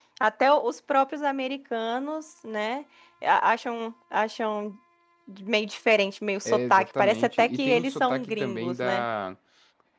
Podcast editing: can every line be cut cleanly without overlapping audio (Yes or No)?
No